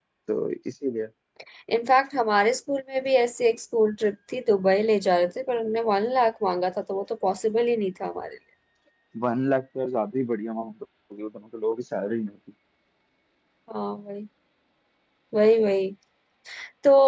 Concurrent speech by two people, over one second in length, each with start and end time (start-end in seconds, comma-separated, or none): none